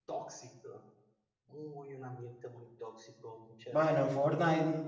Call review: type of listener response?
taking over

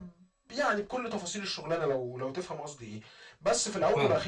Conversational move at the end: listening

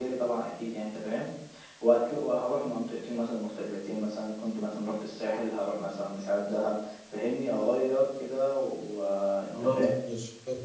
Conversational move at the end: taking over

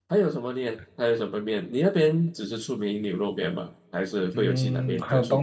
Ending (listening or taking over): taking over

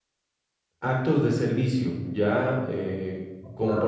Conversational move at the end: taking over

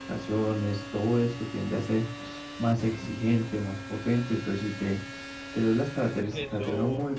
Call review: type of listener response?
listening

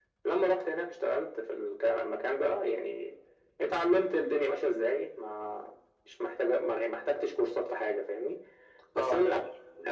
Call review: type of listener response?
listening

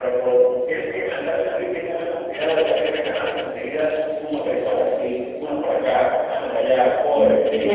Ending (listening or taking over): taking over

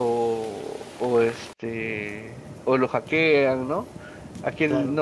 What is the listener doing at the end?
listening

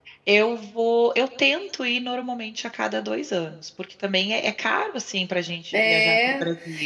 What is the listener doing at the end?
taking over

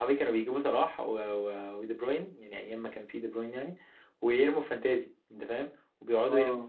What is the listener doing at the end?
taking over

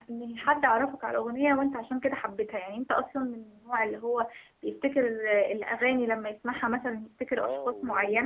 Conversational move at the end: taking over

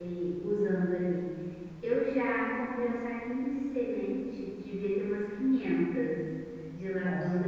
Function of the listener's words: listening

